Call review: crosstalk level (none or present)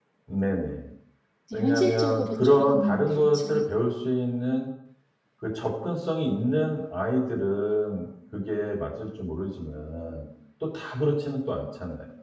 present